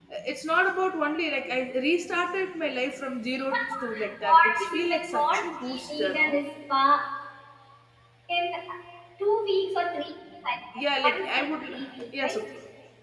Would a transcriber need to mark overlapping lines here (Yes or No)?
Yes